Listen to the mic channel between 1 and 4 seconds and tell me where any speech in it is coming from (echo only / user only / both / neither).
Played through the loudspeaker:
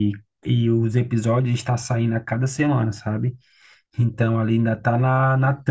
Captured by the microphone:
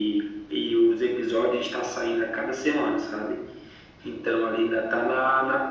echo only